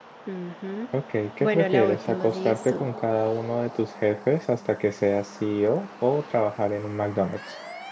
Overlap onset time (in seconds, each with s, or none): 1.4 s